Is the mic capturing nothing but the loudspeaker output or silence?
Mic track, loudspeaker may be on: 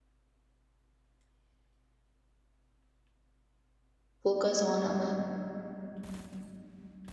No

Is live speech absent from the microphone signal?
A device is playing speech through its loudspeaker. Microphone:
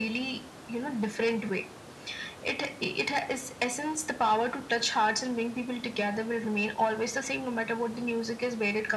Yes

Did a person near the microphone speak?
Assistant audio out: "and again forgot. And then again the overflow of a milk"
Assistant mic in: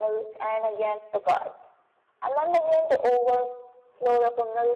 No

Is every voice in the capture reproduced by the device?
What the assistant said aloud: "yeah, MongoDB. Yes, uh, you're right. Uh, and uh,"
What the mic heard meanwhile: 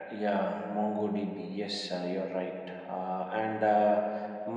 Yes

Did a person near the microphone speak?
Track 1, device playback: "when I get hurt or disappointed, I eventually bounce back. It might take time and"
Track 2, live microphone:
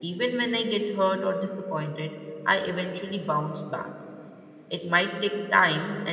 No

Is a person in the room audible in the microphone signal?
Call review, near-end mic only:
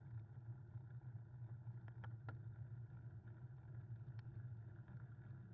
No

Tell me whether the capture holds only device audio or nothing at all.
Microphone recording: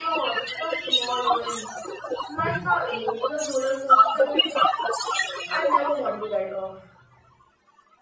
No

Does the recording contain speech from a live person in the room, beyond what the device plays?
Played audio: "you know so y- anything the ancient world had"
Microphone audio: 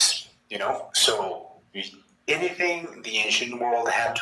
No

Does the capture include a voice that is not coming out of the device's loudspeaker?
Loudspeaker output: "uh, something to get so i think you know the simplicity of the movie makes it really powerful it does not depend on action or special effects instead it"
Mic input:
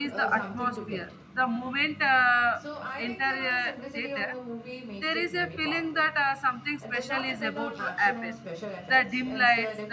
Yes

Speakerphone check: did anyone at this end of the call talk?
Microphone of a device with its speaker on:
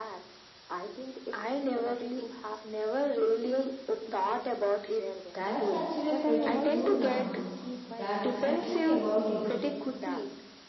Yes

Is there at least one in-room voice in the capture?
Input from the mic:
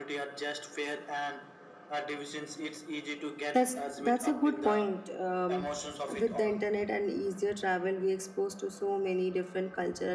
Yes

